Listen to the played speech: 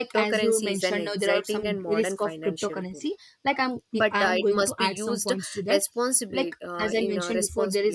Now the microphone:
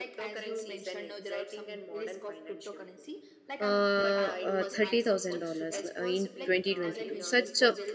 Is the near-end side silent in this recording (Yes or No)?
No